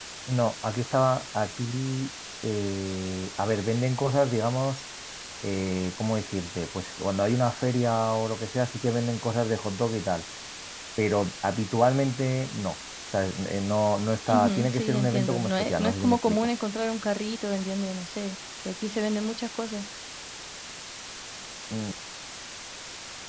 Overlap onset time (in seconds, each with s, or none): 14.3 s